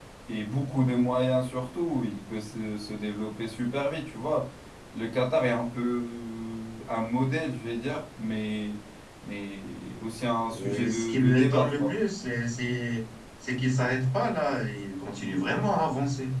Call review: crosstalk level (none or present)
present